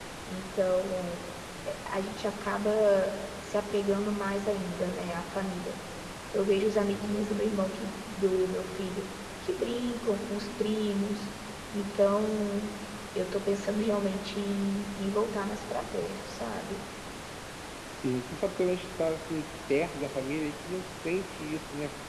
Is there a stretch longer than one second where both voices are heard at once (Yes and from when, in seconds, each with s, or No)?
No